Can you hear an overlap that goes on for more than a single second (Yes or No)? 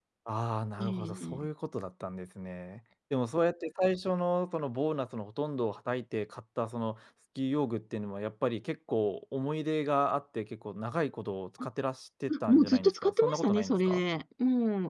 Yes